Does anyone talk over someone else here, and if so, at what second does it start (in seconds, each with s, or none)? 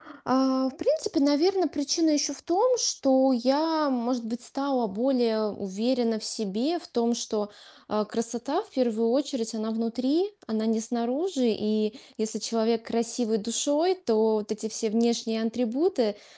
none